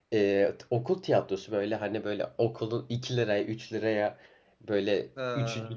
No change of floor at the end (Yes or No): Yes